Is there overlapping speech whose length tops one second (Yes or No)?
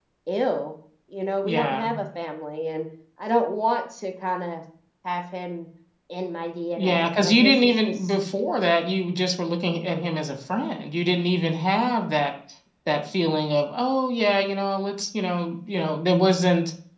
Yes